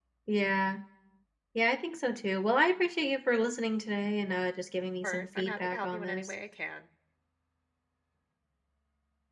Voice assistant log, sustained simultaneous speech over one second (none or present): present